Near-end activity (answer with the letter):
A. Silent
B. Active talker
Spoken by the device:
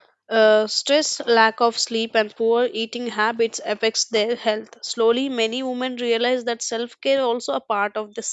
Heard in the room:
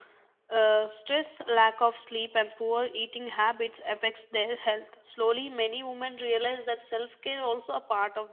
A